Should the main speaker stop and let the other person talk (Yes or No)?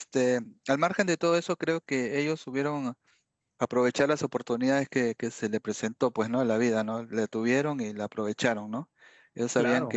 No